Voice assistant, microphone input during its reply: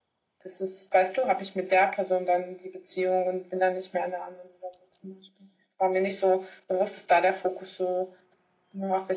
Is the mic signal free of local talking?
Yes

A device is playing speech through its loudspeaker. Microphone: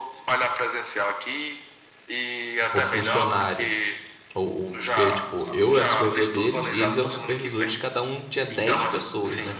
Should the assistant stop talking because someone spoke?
Yes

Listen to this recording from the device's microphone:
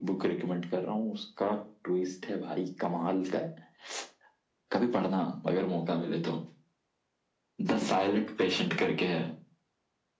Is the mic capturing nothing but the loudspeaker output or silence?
Yes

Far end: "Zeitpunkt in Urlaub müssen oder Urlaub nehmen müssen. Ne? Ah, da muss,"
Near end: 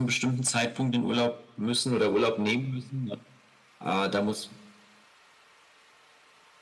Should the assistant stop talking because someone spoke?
No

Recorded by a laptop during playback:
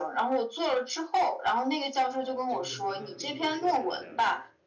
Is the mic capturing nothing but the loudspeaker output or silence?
No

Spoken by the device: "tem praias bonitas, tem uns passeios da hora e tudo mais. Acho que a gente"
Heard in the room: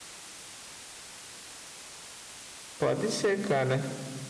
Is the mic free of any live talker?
No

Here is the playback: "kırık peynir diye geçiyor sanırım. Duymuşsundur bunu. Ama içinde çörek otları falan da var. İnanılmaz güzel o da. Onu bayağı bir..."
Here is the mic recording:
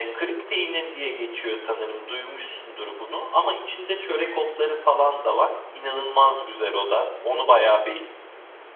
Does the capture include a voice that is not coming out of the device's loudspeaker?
No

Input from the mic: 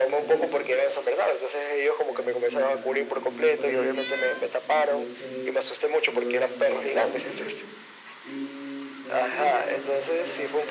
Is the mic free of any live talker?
No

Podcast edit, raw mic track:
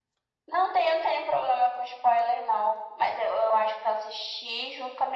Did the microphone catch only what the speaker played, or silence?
Yes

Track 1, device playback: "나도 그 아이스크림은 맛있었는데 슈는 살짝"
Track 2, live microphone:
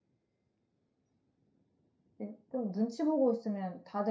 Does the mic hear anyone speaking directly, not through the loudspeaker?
Yes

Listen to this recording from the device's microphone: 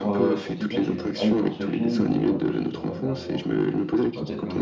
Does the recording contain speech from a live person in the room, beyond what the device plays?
Yes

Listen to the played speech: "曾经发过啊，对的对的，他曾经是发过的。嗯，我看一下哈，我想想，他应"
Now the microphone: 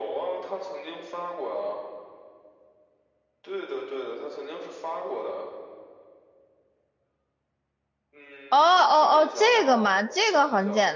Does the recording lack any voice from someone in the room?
No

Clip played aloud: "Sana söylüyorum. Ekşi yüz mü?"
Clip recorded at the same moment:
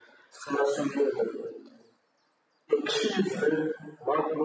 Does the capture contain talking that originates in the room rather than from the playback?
No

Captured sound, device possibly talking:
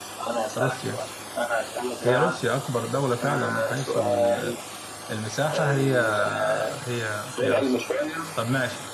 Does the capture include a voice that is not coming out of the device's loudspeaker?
Yes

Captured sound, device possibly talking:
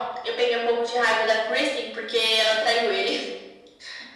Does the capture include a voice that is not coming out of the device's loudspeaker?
No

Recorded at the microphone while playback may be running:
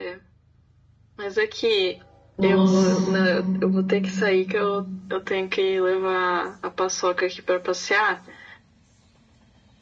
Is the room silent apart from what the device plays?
No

